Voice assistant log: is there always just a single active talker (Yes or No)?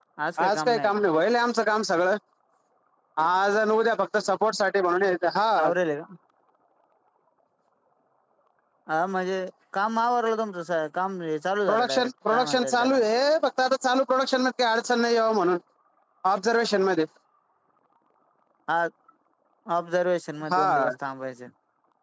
No